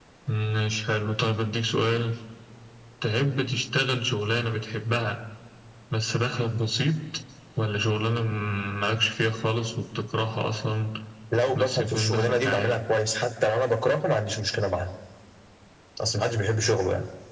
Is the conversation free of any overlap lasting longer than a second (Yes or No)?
No